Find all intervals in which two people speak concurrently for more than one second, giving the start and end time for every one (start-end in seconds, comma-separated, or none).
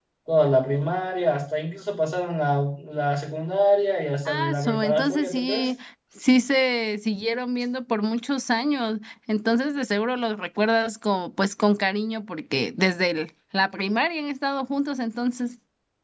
4.2-5.7